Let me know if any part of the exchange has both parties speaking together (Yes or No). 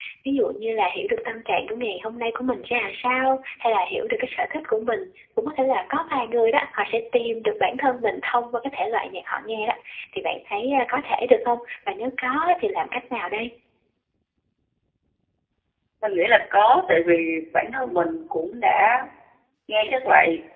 No